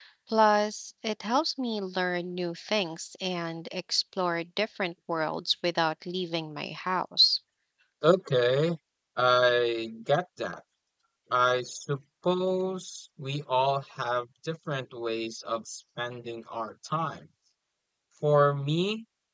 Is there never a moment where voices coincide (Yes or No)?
Yes